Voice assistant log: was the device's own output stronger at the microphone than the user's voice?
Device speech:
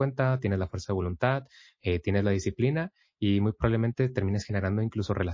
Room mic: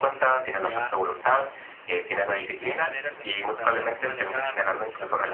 Yes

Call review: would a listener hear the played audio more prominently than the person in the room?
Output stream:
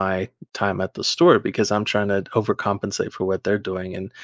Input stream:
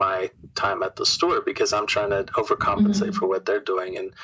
No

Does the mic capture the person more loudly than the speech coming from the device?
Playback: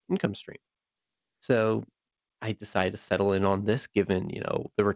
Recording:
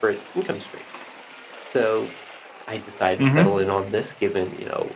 Yes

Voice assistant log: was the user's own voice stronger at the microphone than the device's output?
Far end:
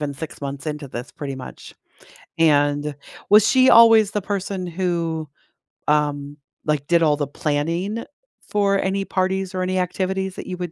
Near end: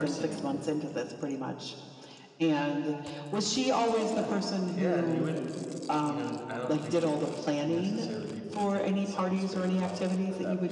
No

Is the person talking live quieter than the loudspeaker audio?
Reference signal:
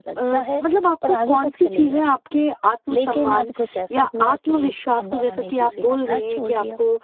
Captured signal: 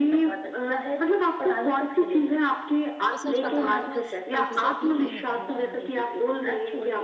Yes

